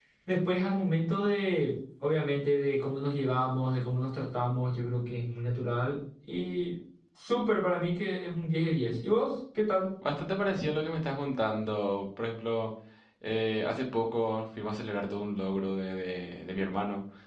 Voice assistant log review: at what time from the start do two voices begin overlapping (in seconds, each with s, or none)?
none